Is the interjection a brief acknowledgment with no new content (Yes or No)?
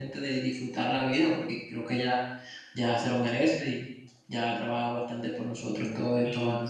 No